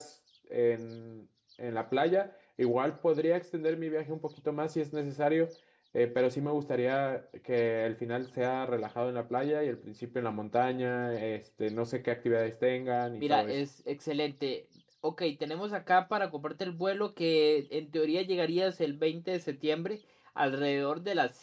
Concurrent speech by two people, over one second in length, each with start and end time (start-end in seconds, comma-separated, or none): none